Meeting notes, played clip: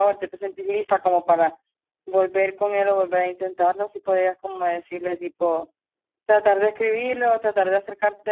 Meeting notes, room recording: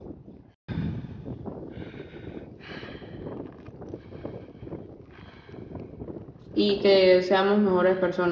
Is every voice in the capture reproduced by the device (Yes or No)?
No